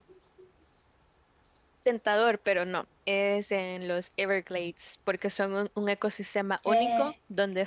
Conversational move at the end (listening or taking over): listening